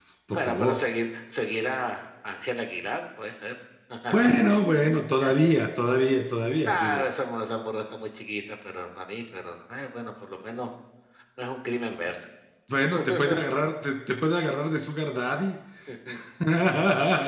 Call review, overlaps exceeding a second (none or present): none